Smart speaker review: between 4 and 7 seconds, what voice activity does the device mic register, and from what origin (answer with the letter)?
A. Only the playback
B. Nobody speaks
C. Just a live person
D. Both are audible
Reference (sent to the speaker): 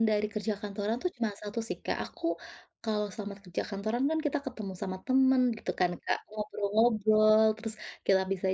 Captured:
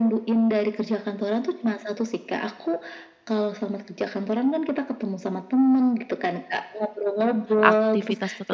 A